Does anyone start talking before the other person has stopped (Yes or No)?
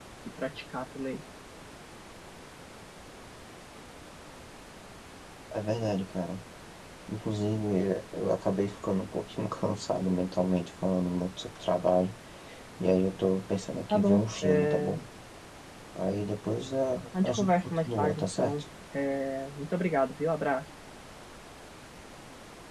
Yes